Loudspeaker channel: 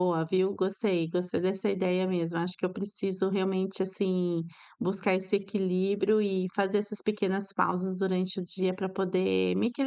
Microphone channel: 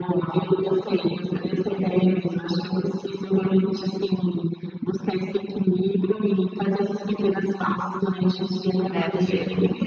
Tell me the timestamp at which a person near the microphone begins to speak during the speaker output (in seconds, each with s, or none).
8.9 s